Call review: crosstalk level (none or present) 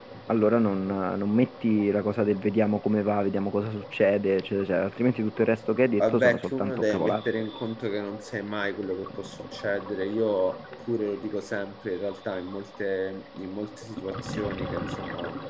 present